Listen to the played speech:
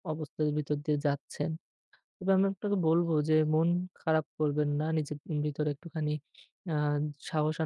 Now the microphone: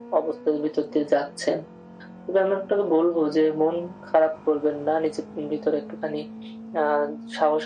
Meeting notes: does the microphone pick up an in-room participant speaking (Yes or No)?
No